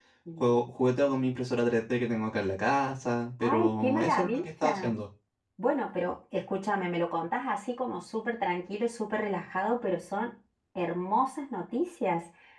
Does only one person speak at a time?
No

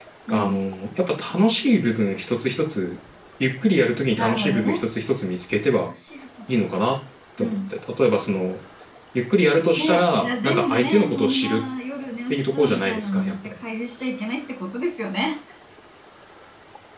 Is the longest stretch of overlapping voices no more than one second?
No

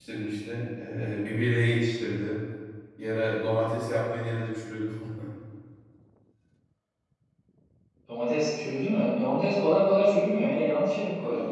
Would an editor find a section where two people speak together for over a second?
No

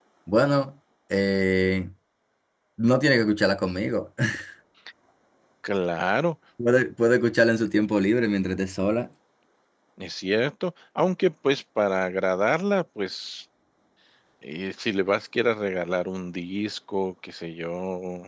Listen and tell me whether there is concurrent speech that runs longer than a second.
No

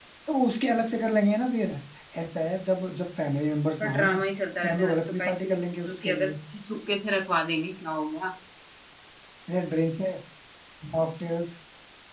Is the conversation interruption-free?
No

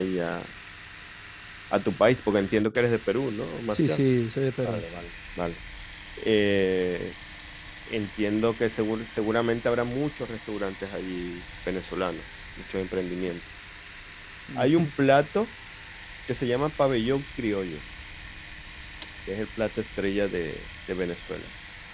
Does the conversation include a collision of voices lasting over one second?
No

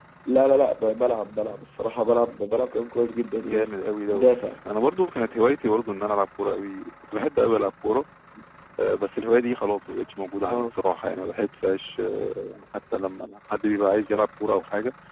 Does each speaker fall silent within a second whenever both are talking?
Yes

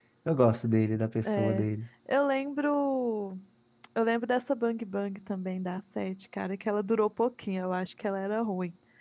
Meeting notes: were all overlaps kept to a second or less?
Yes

